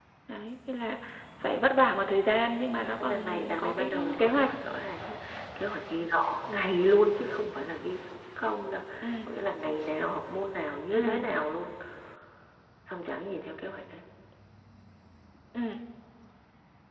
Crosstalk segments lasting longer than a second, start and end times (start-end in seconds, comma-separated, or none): 3.0-4.5